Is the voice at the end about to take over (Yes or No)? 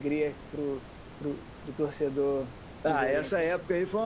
Yes